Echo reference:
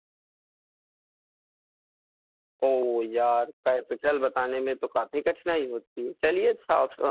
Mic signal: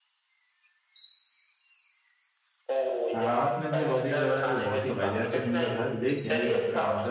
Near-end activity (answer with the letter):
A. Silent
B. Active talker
B